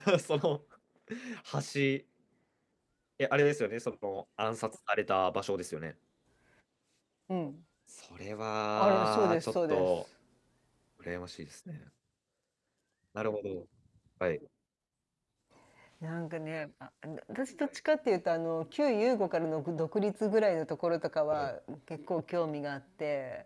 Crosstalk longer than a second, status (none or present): present